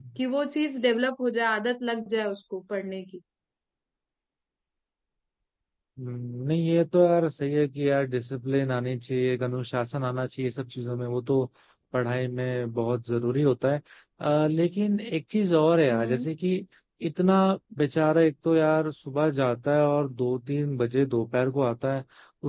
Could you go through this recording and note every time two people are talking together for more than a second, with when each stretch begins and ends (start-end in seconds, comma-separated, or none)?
none